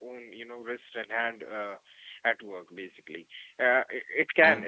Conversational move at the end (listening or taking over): listening